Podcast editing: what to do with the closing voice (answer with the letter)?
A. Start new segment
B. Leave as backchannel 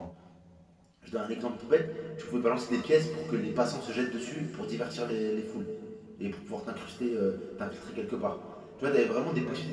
B